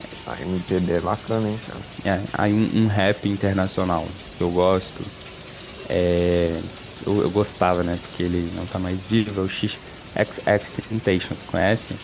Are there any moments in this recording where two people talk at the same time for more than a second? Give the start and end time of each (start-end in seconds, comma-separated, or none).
none